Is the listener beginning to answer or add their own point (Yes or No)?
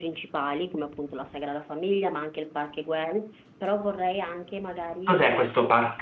Yes